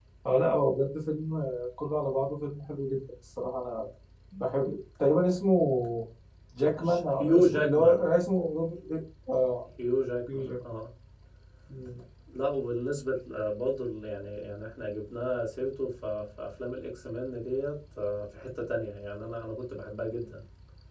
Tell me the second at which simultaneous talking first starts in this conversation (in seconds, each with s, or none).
6.8 s